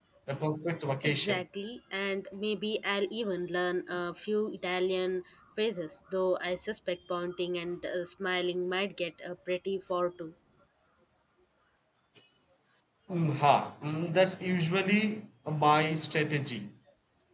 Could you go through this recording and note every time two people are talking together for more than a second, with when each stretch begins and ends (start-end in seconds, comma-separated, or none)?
none